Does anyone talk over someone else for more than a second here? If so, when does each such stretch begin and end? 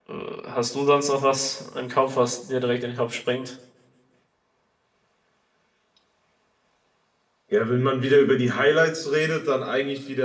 none

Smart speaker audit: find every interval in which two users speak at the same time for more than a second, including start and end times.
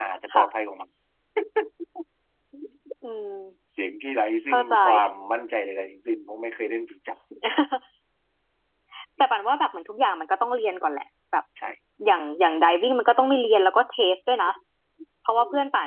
none

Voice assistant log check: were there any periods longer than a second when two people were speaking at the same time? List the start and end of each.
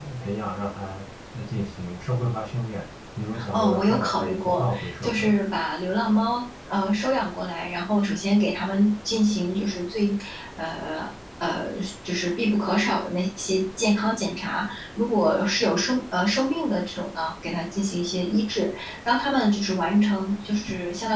3.5-5.4

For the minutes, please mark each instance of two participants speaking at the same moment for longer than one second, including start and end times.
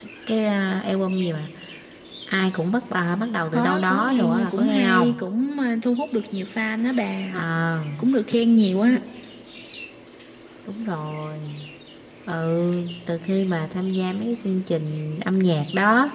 3.5-5.2

